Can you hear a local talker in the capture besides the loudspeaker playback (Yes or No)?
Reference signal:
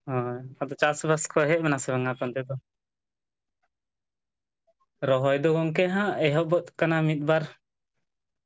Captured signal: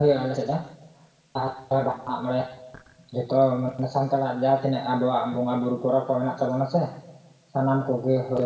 Yes